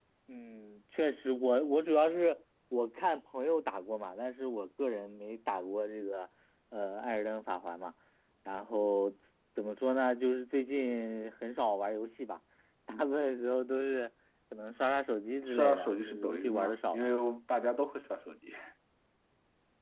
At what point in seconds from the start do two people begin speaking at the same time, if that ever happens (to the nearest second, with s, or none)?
15 s